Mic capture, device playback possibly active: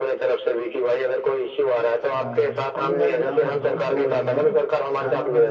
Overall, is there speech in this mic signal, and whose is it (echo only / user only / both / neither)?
both